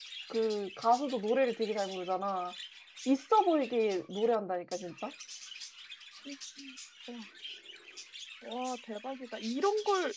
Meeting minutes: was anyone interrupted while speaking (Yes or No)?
No